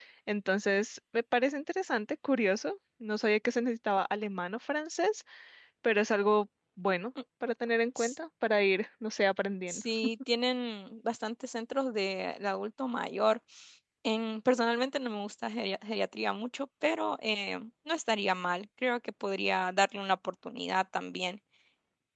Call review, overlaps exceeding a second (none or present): none